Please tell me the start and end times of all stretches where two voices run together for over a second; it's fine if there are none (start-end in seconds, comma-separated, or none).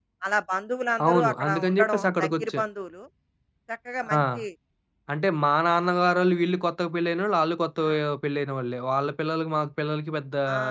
1.0-2.6